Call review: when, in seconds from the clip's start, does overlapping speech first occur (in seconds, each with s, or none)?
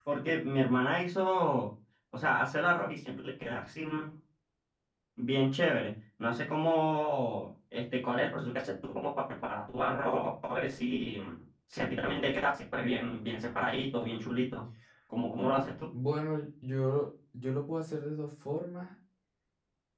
none